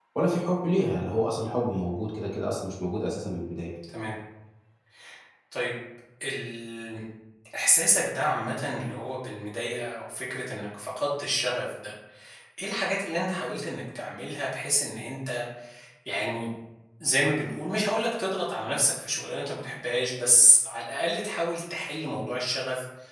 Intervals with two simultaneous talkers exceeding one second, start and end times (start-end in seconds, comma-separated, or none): none